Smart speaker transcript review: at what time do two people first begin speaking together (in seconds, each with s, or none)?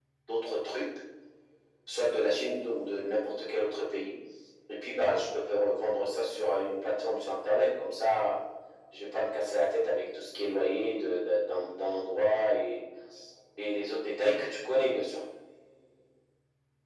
none